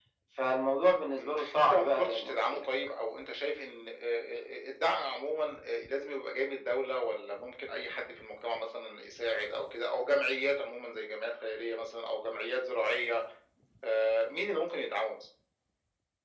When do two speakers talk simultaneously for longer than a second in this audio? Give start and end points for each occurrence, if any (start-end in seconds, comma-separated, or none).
1.2-2.6